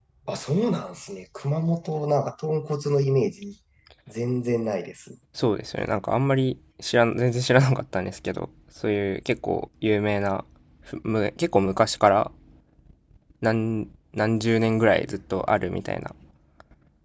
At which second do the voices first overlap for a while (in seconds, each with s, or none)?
none